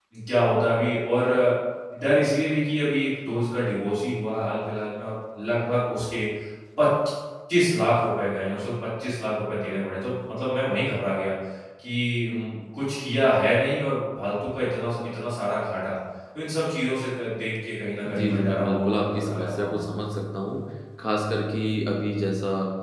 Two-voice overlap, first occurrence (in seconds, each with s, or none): 18.1 s